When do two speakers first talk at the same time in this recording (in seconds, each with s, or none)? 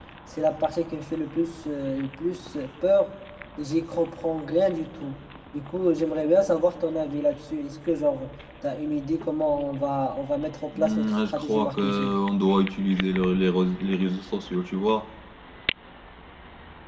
10.7 s